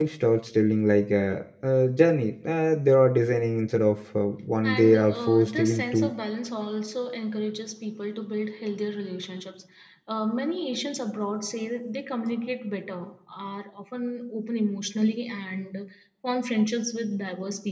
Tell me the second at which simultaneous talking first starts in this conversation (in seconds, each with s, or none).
4.6 s